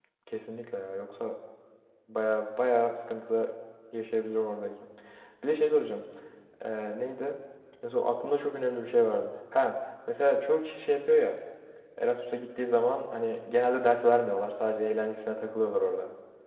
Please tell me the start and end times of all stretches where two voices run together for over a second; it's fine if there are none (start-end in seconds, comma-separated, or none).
none